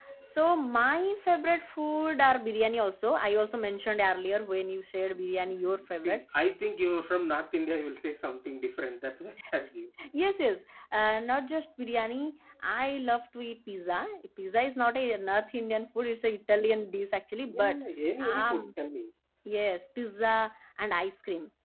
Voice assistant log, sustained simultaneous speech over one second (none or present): none